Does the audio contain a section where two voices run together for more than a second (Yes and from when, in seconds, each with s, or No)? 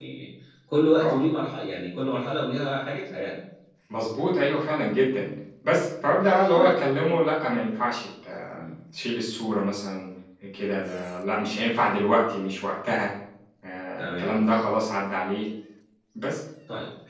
No